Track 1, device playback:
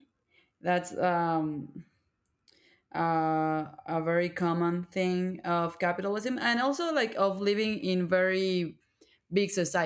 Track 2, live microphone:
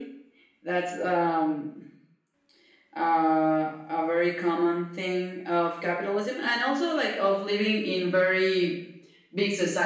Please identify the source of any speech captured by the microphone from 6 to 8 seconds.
echo only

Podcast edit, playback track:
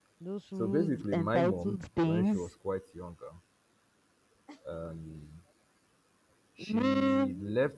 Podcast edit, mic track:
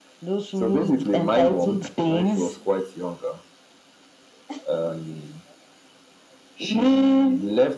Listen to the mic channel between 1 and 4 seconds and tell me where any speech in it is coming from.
echo only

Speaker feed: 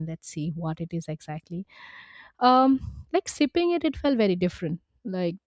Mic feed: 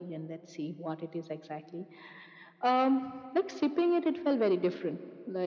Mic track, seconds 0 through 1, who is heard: echo only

